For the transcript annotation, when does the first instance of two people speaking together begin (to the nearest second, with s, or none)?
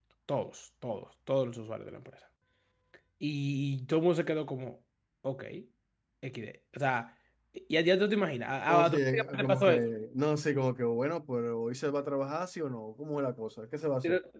9 s